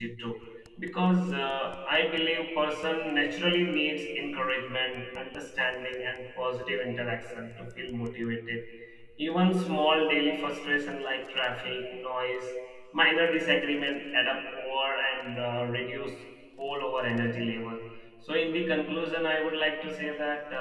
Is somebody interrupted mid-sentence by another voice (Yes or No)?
No